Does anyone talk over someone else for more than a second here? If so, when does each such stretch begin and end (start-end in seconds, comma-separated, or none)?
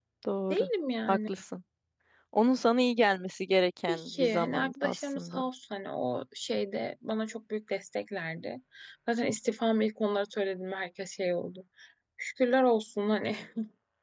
3.9-5.4